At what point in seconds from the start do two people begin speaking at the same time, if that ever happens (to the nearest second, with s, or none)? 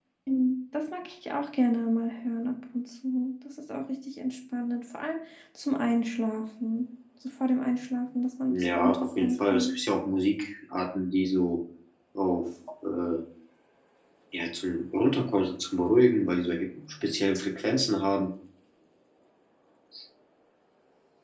8 s